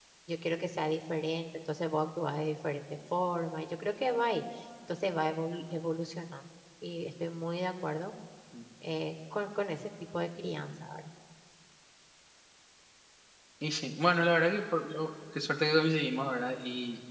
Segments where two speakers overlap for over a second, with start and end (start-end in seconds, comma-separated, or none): none